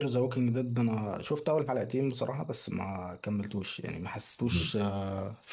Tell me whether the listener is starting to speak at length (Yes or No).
No